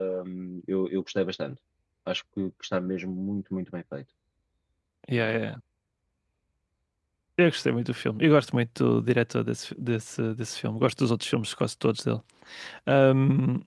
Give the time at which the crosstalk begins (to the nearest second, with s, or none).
none